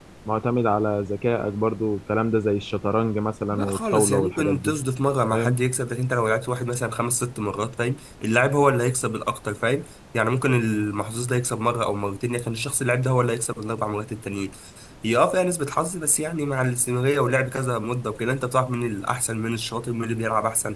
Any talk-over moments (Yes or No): Yes